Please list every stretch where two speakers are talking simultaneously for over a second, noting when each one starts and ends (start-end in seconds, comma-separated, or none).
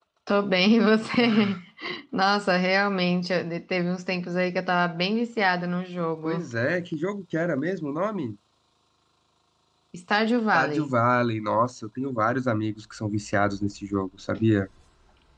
none